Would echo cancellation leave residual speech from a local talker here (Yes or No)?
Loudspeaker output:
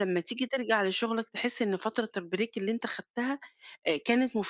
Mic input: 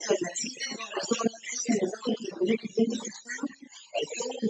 No